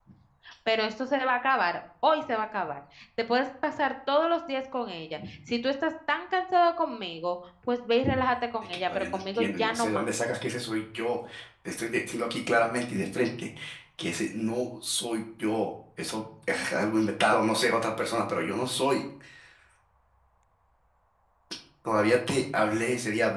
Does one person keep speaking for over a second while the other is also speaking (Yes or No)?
Yes